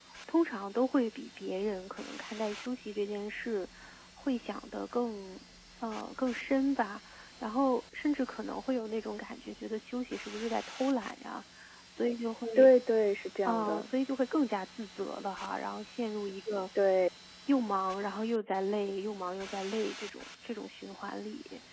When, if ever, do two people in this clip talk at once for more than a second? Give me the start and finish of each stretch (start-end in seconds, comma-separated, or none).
none